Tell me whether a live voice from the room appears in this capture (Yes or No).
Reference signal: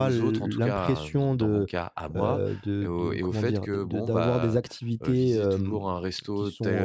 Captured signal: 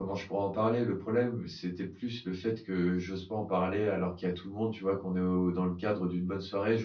Yes